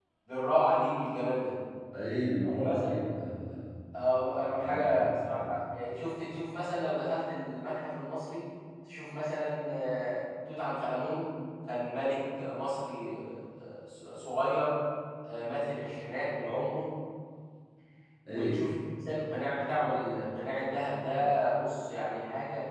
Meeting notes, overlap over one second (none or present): present